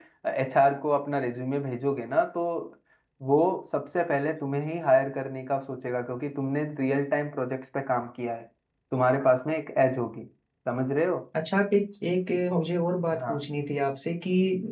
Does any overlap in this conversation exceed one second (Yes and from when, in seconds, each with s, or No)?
No